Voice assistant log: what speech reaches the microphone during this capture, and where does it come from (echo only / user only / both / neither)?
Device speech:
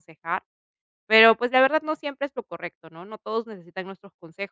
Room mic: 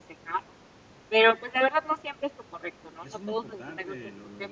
both